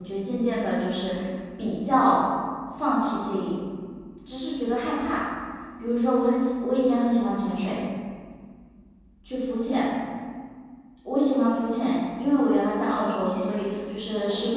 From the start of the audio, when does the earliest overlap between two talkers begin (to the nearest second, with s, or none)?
13 s